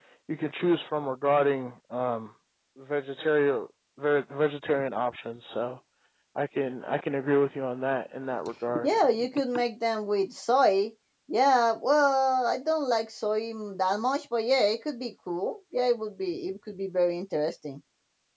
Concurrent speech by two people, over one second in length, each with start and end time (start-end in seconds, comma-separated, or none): none